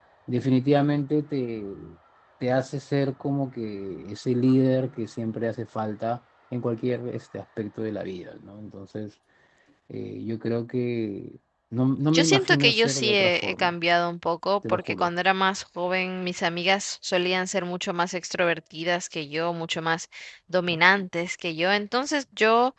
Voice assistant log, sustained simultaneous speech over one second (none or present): present